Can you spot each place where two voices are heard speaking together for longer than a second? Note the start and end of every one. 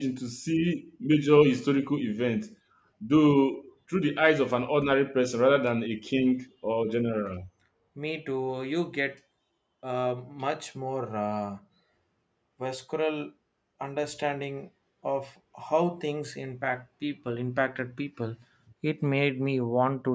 none

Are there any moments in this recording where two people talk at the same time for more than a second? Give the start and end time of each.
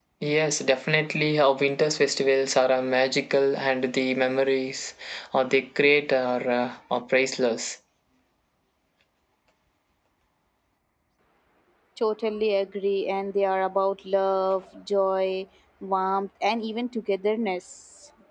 none

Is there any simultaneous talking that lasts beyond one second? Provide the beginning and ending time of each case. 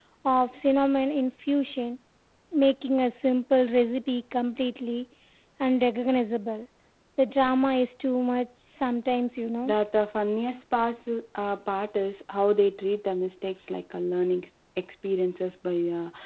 none

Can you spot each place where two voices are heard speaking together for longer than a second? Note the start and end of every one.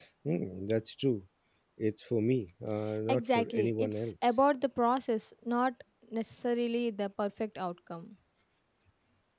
3.1-4.4

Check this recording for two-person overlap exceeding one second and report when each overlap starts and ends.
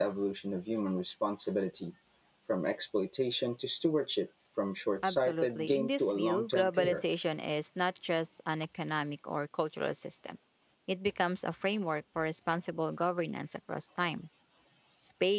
5.0-7.1

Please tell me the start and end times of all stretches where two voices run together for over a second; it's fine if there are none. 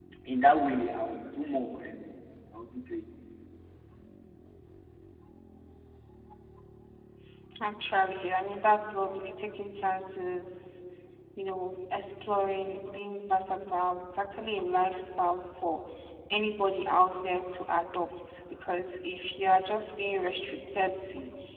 none

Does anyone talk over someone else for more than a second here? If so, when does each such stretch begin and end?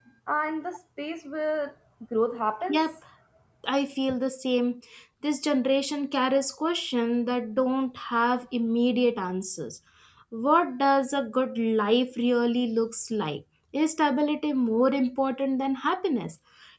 none

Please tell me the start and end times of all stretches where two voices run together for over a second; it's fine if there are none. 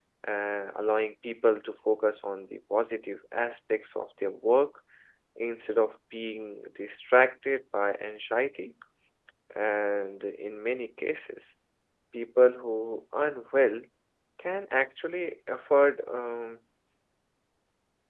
none

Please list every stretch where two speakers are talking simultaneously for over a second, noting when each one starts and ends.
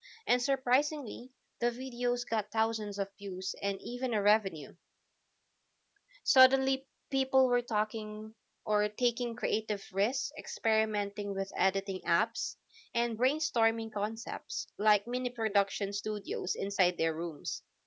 none

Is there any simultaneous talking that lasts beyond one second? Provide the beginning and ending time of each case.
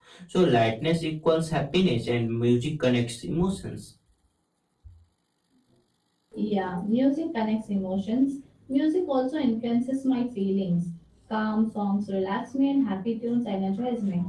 none

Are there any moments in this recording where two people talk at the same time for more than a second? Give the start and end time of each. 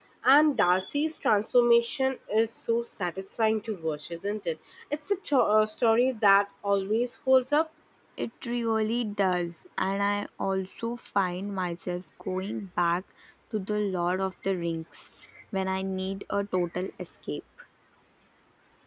none

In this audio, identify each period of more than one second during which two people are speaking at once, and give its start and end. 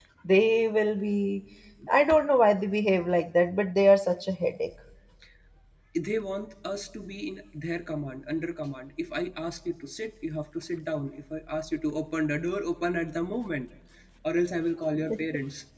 none

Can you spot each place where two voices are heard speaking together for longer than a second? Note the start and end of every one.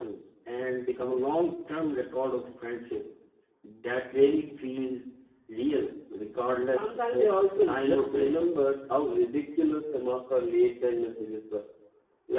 6.7-8.5

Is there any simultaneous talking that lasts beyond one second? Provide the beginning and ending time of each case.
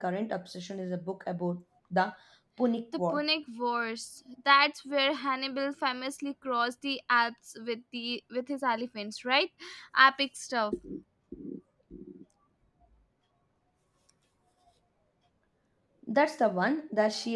none

